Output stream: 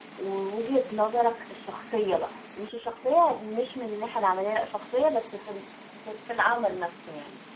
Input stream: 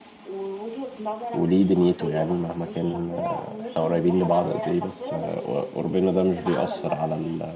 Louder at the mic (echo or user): user